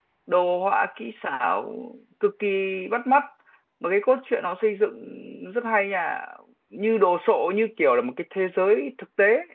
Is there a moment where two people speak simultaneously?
No

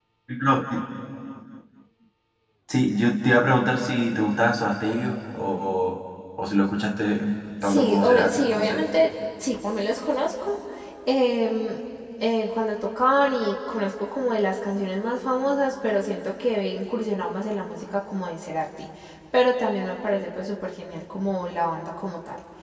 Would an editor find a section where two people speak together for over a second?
Yes, from 7.6 s

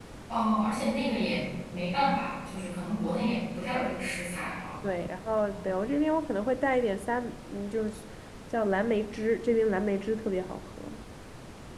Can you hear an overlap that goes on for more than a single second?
No

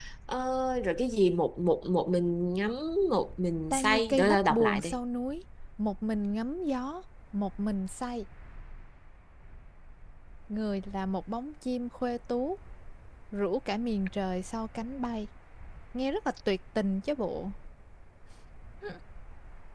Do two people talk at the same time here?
Yes, from 3.7 s

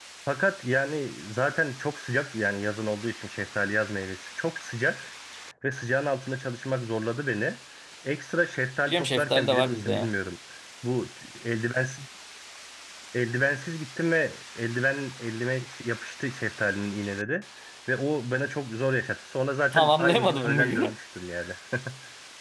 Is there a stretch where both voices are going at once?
Yes, from 8.9 s

